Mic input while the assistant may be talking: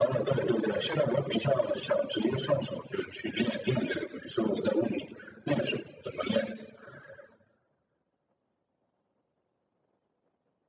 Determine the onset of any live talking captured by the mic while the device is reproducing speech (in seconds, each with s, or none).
none